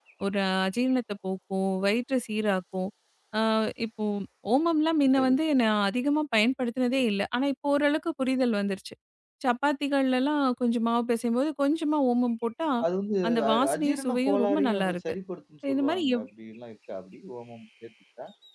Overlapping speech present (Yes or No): Yes